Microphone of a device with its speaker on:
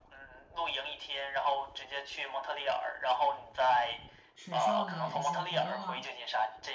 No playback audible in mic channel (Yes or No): No